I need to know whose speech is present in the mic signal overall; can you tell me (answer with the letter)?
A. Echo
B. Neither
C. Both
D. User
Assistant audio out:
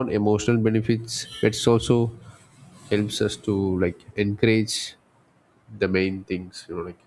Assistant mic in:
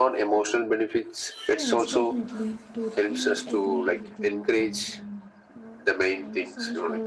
C